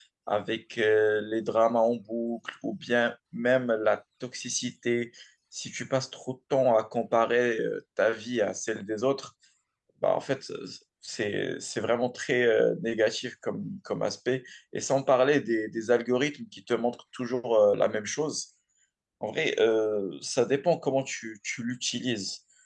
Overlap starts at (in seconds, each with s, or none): none